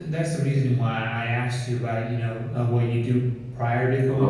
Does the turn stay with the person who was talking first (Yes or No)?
Yes